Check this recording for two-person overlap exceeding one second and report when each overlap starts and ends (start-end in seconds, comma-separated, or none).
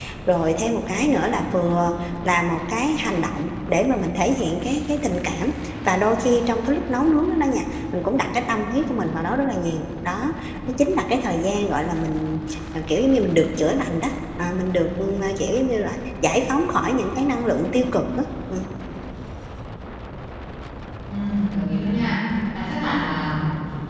none